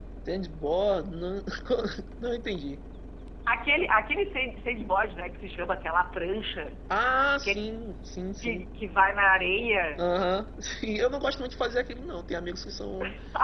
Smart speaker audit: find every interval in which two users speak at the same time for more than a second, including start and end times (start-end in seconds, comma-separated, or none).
none